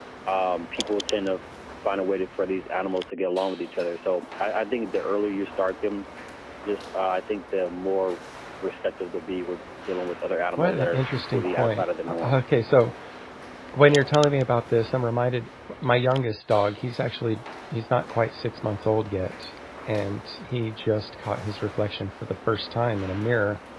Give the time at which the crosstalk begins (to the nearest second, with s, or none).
11 s